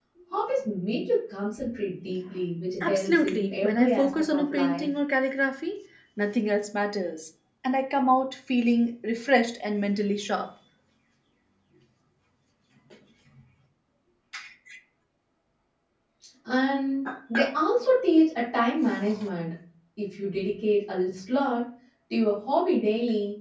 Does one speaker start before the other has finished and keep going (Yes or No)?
Yes